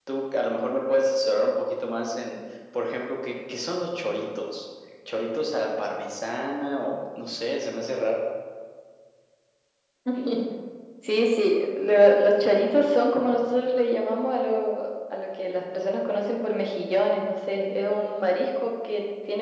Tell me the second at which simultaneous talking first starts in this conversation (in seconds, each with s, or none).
none